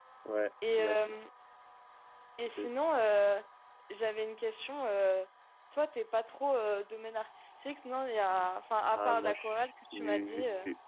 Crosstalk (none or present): present